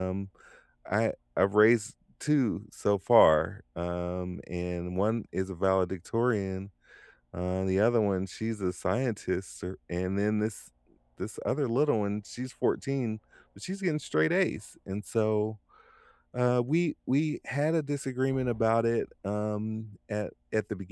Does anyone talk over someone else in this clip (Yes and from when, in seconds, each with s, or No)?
No